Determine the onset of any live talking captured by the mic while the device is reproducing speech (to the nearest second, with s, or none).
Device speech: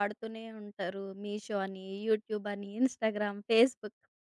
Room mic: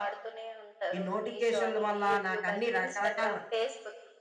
1 s